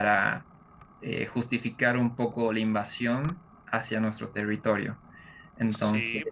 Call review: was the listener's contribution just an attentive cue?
No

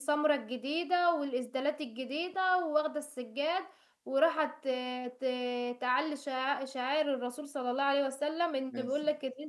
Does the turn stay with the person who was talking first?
Yes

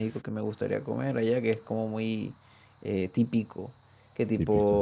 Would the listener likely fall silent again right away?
Yes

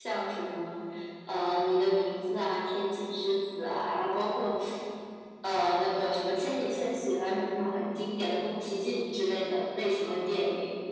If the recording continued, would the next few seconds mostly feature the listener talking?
Yes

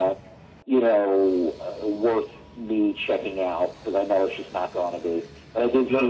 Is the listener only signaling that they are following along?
Yes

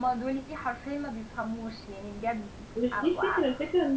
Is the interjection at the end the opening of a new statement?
Yes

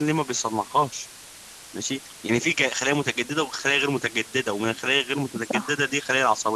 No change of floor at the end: Yes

